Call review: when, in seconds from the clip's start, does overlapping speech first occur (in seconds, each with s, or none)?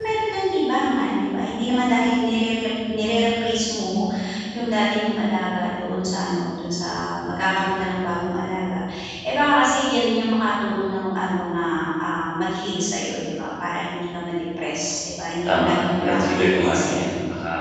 15.5 s